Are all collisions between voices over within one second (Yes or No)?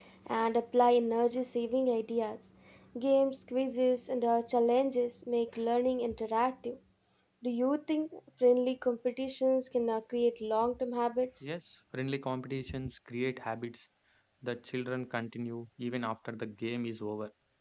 Yes